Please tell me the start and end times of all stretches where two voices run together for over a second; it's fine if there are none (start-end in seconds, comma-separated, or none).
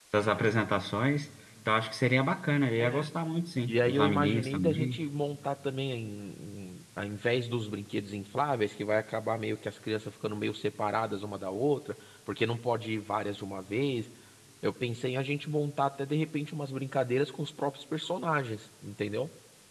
3.7-5.0